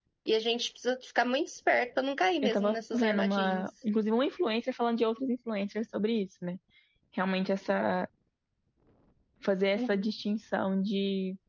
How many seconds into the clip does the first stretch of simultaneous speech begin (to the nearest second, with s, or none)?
2 s